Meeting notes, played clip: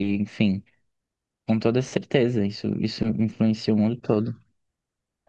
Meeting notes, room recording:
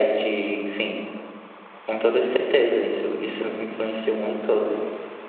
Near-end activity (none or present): none